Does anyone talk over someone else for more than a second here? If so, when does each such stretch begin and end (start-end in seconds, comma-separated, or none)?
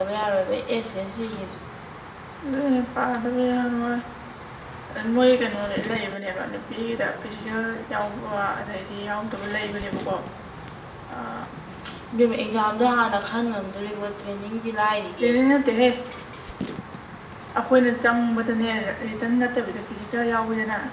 none